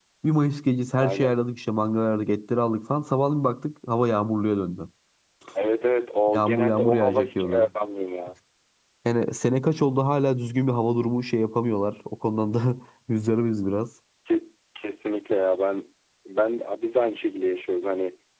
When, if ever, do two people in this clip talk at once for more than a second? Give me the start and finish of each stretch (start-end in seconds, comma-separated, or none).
6.3-7.7